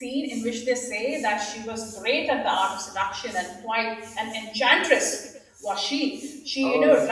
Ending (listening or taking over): listening